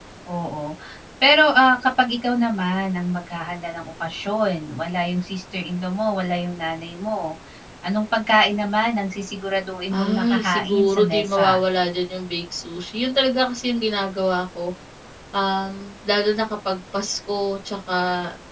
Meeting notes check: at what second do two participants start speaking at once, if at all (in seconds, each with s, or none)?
9.9 s